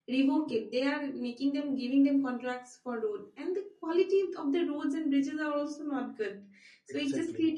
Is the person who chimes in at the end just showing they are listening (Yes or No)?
Yes